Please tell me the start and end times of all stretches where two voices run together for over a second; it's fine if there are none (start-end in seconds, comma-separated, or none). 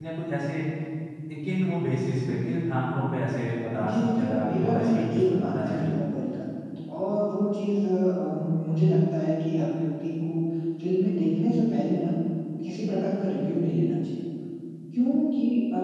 3.9-5.9